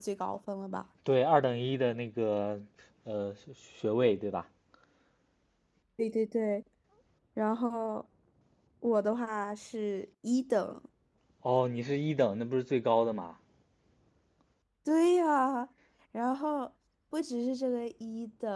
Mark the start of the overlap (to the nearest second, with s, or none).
none